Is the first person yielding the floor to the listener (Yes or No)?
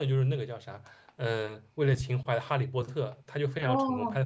Yes